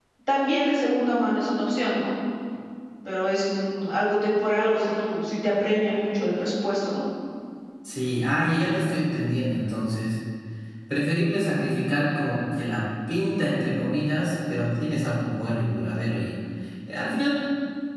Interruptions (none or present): none